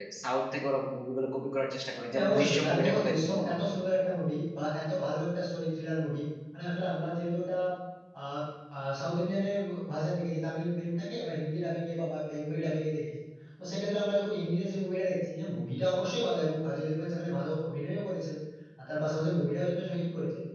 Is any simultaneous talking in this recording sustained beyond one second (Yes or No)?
Yes